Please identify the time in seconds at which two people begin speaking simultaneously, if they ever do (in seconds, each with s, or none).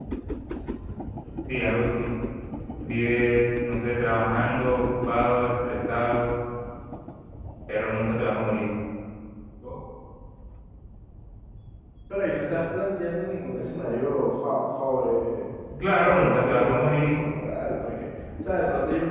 15.9 s